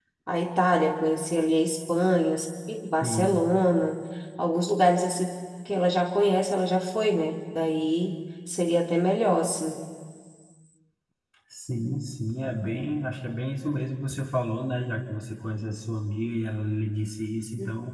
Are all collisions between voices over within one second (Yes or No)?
Yes